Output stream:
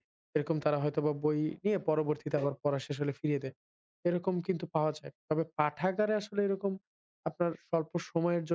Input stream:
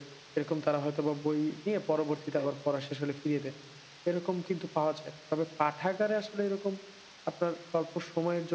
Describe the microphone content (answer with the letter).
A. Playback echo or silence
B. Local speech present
A